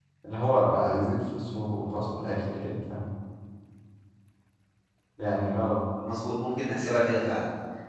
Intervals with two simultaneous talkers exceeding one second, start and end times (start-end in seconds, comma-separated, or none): none